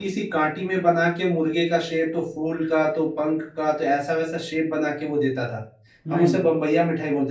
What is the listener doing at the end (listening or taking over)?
listening